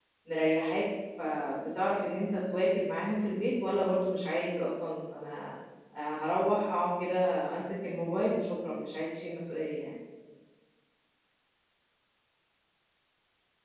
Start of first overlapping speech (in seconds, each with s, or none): none